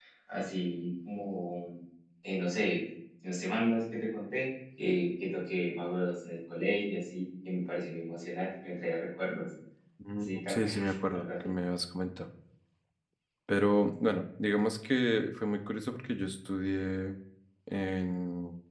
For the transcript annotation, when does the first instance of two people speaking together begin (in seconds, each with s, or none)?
10.2 s